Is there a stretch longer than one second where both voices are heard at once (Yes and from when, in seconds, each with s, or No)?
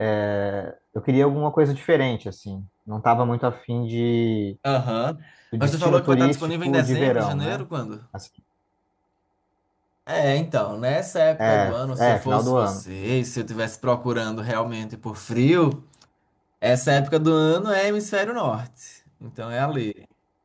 Yes, from 5.6 s